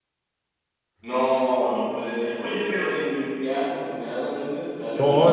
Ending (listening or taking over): taking over